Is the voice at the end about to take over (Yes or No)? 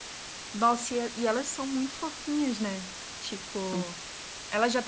No